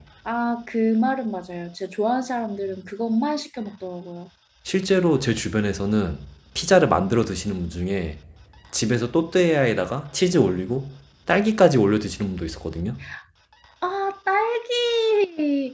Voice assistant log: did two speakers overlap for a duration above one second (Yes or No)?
No